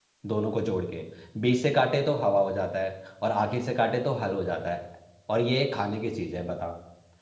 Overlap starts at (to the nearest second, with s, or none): none